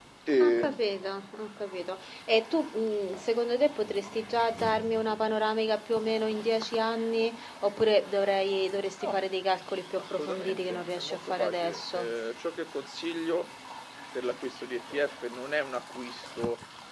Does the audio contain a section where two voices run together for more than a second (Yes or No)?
Yes